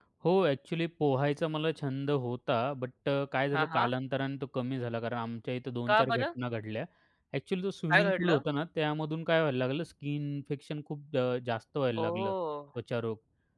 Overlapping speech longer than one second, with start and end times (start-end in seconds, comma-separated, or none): none